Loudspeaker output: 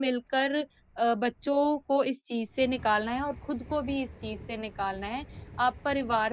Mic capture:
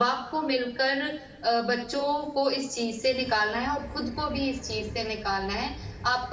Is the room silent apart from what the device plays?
Yes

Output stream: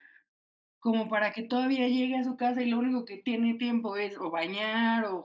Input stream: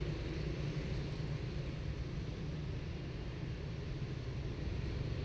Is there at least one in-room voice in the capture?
No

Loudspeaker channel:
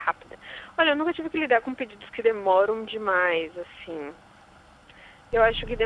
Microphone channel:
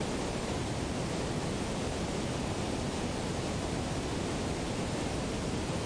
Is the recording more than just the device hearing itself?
No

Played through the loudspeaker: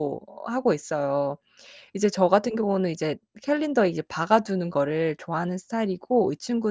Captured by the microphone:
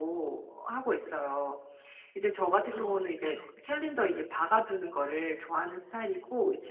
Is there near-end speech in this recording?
Yes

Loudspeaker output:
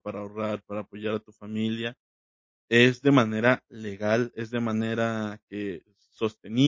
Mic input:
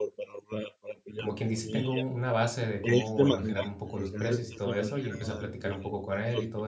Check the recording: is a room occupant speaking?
Yes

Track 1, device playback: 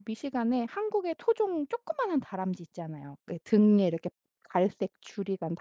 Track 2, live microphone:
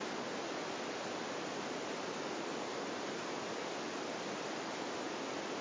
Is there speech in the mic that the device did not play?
No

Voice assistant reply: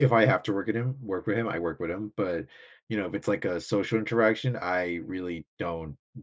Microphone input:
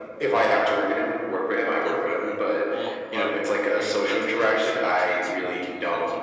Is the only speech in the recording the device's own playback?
No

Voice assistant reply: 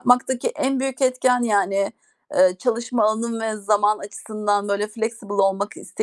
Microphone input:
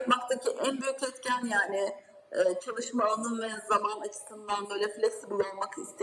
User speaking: No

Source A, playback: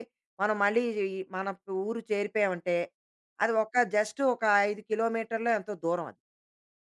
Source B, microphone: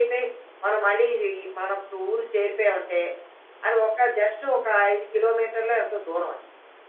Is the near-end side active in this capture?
No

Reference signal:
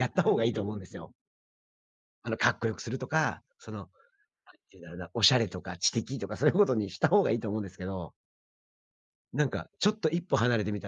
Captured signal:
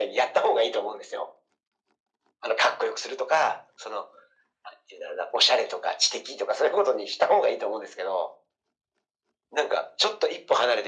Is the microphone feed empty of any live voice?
Yes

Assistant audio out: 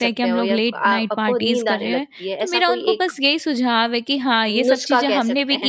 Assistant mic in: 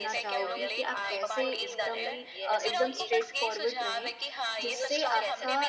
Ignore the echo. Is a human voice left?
Yes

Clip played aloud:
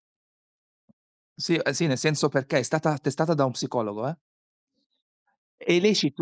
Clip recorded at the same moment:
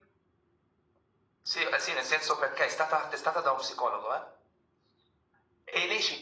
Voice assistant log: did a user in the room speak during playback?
No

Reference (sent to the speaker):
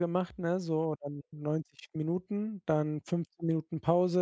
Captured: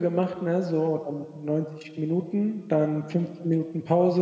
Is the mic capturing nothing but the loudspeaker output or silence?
Yes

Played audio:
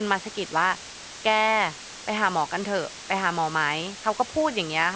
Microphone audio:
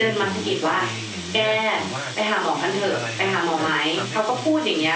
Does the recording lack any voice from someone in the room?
No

